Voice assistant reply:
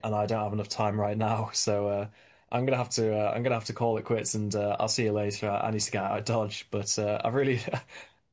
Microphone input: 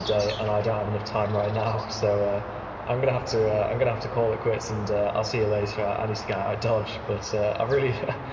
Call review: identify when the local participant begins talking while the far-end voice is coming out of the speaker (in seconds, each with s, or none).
none